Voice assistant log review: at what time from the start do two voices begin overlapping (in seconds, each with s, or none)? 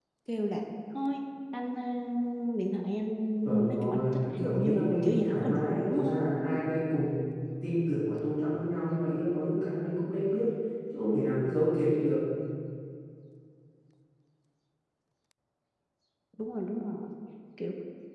3.4 s